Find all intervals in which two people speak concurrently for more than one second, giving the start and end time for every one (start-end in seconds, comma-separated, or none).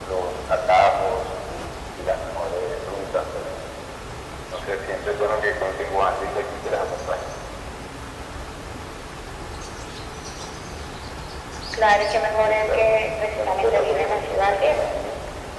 13.3-14.7